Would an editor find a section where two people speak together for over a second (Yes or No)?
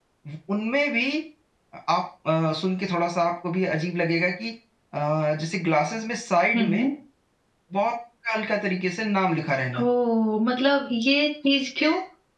No